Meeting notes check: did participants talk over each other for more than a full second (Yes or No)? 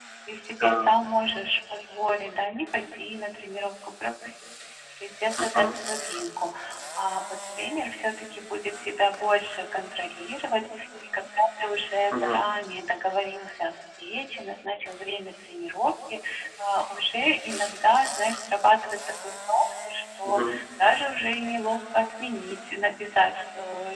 No